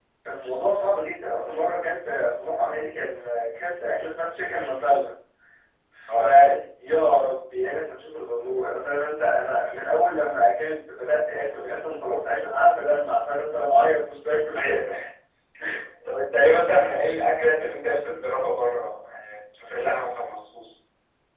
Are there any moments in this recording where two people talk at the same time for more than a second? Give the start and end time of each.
none

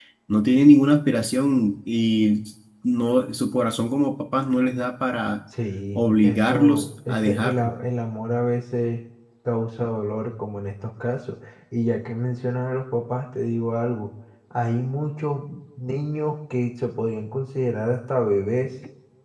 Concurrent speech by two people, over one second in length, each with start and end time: 6.0-7.7

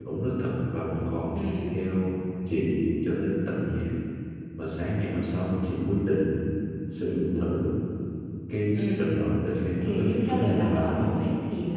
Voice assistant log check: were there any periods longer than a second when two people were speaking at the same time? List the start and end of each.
9.8-11.3

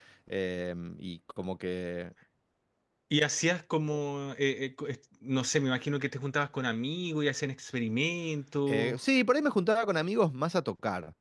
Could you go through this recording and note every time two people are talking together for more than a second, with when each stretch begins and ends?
none

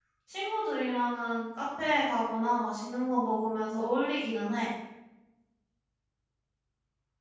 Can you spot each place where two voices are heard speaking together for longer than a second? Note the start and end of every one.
none

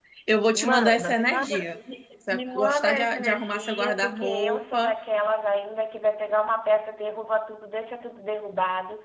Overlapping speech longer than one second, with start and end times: 0.5-1.8, 2.3-4.9

